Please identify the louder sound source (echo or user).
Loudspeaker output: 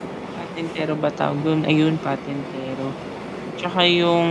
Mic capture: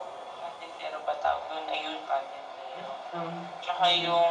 echo